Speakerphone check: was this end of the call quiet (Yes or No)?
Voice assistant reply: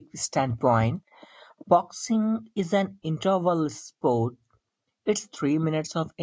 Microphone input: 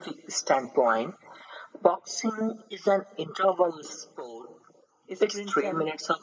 No